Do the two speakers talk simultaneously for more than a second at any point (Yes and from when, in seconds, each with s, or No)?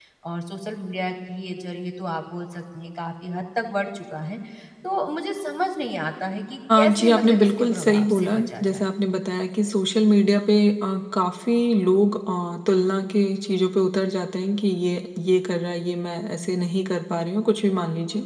Yes, from 6.7 s